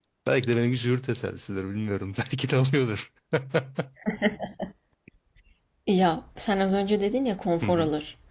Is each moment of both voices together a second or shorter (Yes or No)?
Yes